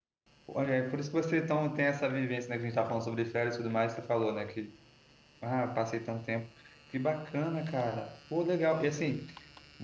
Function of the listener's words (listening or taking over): listening